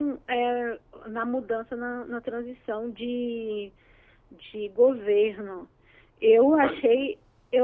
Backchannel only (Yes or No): Yes